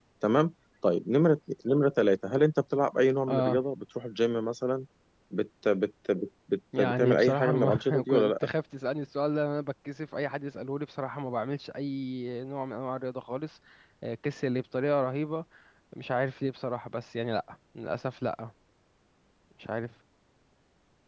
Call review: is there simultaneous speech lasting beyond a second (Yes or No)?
Yes